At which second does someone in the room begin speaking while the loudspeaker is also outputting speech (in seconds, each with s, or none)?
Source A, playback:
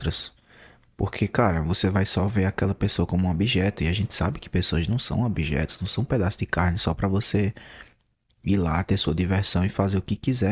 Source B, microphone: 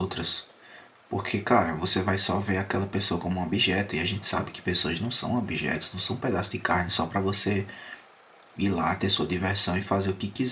none